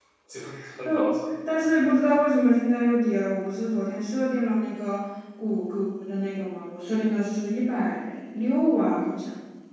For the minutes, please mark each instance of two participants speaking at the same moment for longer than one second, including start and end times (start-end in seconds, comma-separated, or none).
none